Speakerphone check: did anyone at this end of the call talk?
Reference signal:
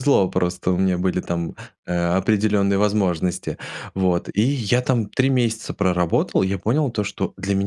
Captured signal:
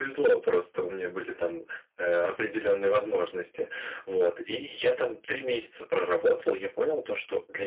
No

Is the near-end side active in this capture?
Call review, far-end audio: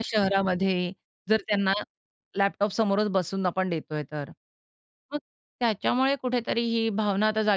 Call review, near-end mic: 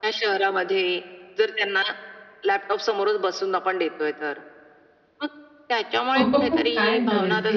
Yes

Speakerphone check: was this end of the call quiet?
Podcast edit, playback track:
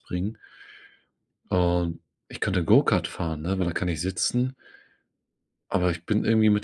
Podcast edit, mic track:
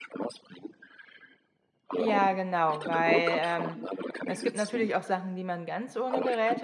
No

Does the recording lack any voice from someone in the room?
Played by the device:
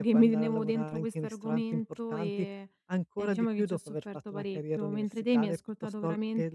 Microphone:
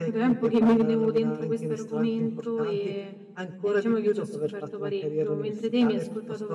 Yes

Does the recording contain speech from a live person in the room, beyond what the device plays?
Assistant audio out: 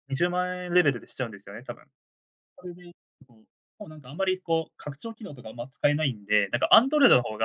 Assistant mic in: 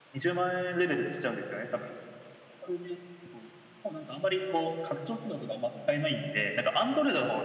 No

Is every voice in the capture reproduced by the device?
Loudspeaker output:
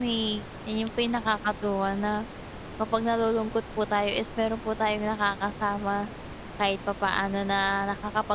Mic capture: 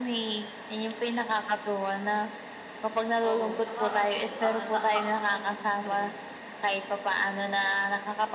No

